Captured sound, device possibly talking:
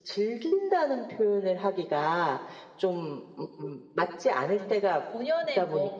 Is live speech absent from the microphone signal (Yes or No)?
No